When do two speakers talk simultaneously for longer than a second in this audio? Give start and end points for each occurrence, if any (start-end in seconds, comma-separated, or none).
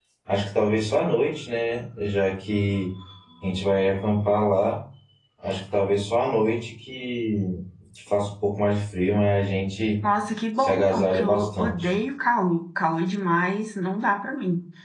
10.6-11.9